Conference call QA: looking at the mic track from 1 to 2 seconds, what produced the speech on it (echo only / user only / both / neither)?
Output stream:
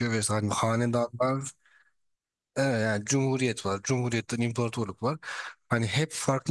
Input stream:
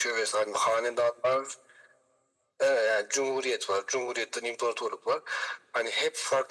echo only